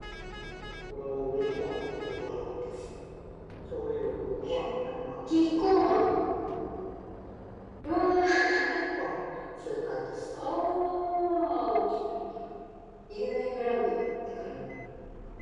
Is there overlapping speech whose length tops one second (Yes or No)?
Yes